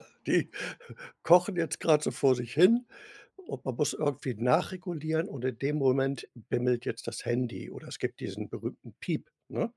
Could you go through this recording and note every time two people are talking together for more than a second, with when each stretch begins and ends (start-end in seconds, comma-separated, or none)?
none